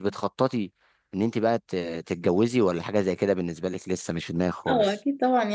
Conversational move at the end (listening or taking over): taking over